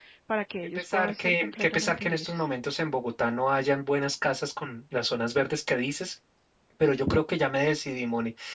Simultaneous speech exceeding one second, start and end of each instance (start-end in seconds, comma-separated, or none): 0.8-2.5